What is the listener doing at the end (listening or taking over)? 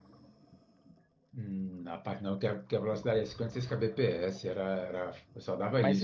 taking over